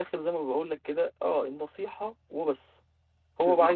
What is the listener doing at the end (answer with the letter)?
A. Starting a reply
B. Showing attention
B